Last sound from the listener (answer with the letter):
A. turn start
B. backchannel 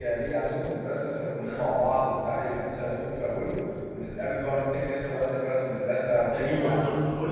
A